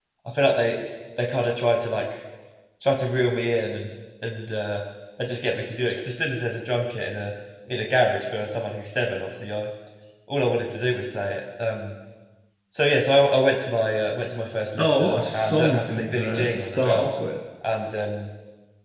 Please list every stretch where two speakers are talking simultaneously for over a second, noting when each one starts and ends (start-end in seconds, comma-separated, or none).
14.8-17.2